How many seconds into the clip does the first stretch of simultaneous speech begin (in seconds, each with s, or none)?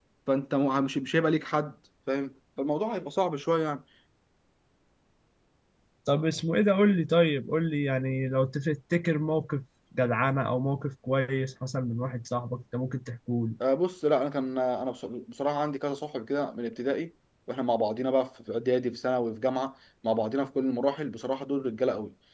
none